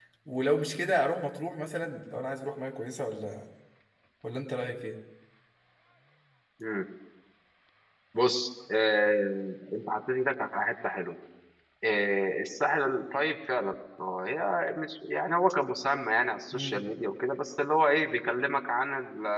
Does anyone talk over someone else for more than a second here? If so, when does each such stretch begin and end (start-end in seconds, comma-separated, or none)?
none